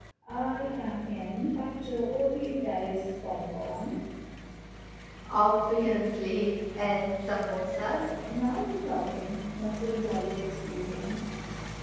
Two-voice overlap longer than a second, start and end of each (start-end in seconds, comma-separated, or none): none